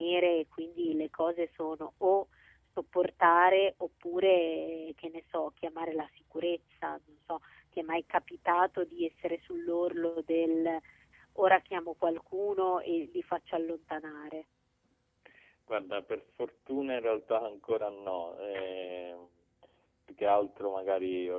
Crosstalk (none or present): none